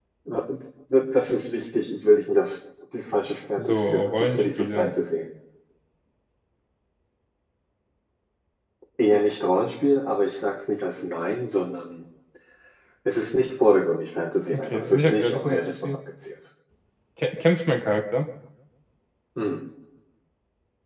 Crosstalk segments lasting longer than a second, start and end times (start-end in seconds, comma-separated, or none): 3.6-4.9, 14.5-16.0